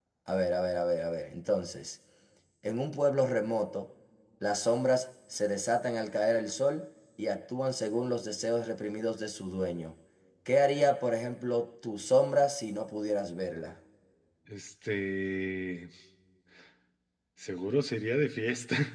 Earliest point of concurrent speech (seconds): none

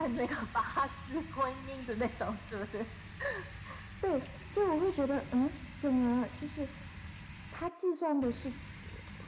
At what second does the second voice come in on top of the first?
none

